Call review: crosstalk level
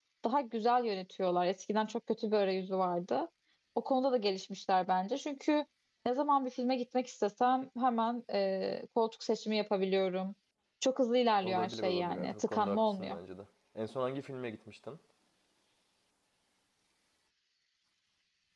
present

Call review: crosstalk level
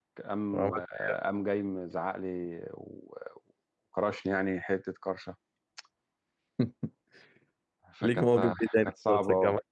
present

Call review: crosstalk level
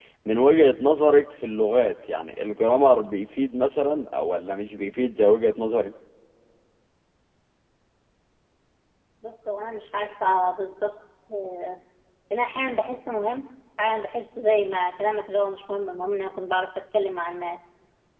none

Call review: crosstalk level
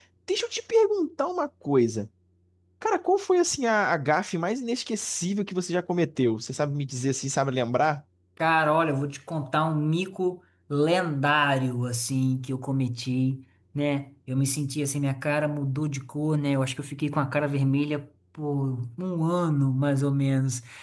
none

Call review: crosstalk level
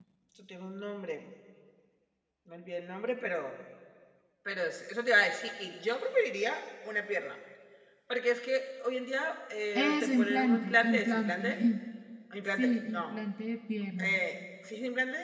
present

